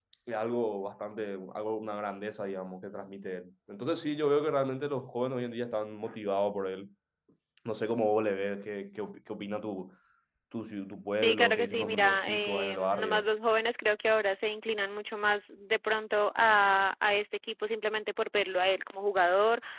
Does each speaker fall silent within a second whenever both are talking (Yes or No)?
No